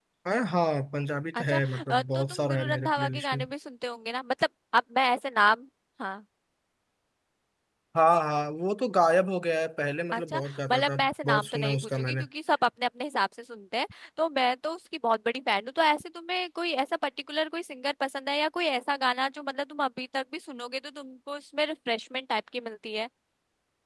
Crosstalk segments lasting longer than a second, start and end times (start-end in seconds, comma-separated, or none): 1.4-3.4, 10.1-12.2